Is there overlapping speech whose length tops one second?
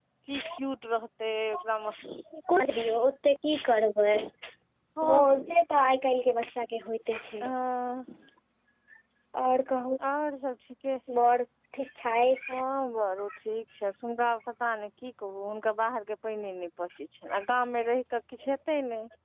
No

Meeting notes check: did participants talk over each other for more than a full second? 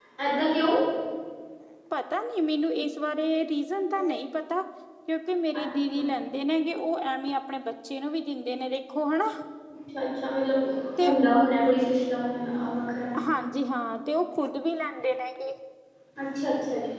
No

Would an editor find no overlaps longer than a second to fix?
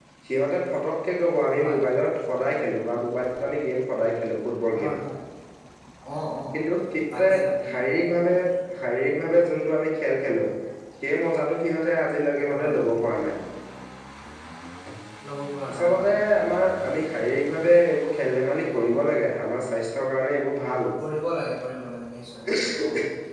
Yes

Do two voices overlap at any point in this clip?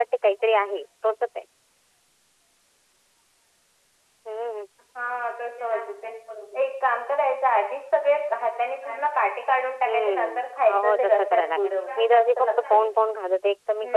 Yes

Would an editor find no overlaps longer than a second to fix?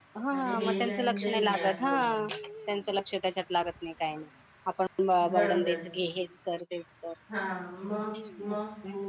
No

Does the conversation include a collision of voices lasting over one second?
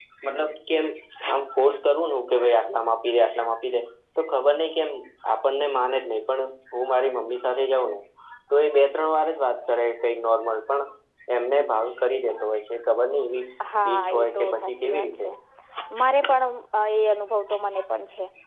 Yes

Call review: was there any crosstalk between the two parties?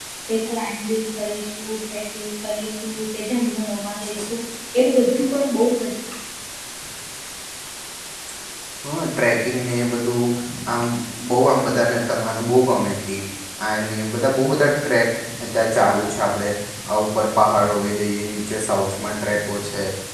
No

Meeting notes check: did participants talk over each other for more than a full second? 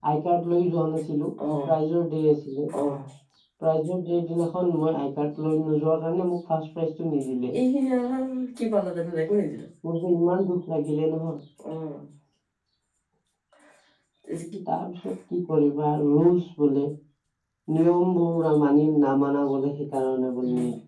No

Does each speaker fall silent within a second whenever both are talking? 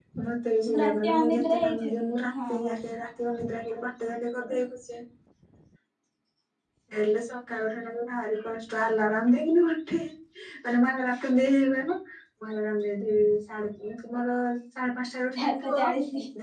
No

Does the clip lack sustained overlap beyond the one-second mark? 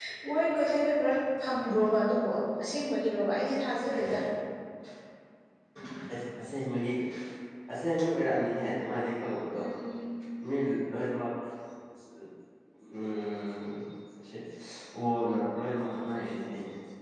Yes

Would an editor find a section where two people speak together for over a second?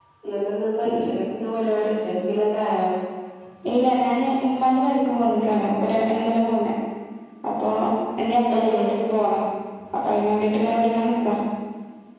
No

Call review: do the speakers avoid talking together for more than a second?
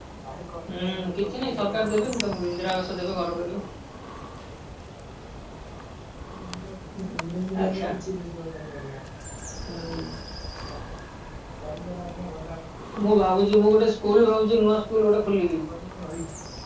No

